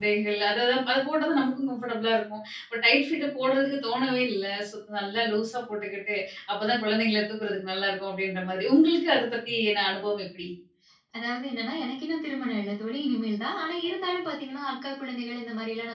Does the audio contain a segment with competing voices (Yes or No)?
No